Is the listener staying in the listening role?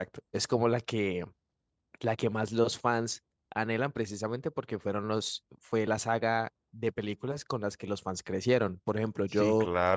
No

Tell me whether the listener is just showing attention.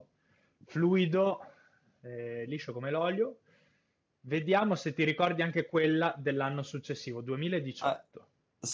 No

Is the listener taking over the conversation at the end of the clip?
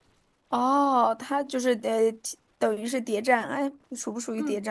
Yes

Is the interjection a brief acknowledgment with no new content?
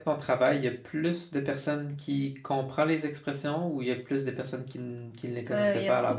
No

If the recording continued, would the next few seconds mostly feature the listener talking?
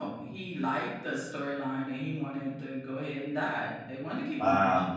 Yes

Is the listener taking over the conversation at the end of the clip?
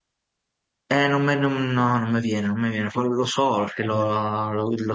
No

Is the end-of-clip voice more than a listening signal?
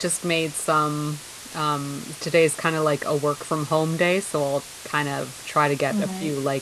No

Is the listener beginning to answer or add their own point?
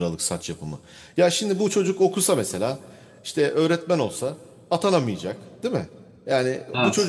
No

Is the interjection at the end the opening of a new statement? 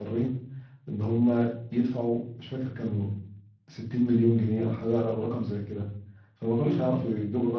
No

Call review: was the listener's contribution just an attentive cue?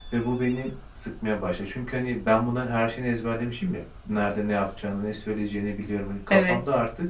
Yes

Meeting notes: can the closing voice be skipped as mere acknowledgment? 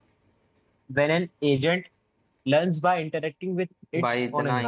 No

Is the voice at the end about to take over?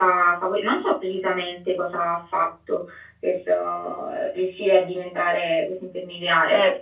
Yes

